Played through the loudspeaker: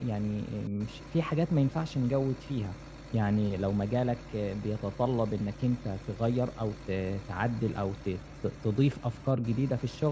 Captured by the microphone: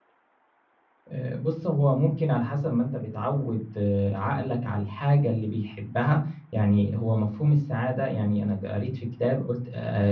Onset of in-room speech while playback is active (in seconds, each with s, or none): 1.1 s